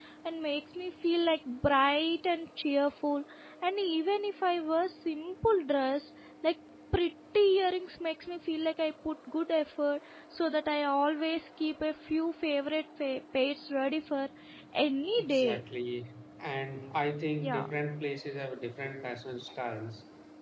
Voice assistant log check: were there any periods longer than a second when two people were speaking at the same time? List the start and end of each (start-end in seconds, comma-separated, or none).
none